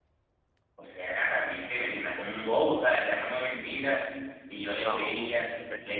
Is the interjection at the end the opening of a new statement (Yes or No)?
No